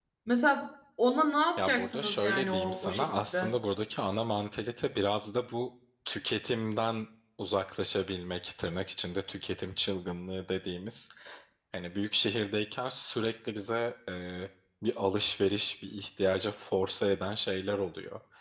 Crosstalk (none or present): present